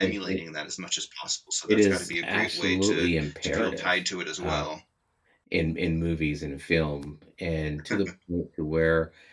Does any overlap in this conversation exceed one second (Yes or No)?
Yes